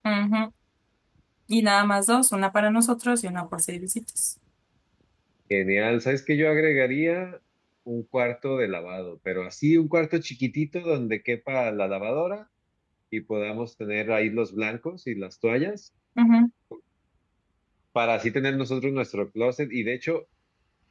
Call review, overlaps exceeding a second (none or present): none